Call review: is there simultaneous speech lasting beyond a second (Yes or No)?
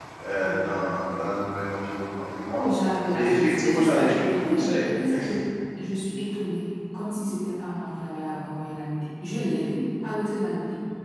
Yes